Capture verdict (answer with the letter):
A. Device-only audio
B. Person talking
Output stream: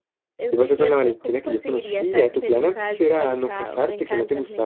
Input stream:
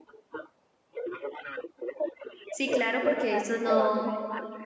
B